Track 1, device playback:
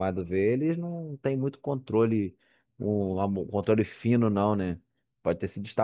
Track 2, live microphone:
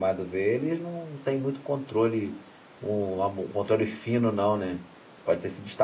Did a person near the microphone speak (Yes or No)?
No